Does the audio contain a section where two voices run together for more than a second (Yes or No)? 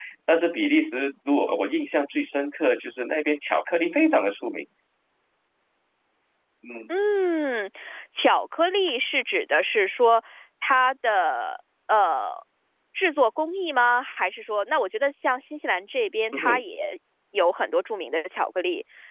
No